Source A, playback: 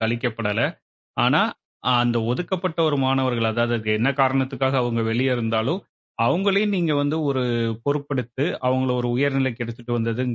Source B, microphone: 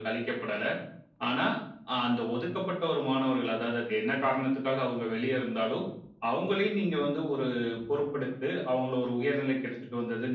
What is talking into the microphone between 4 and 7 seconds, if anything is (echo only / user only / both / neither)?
echo only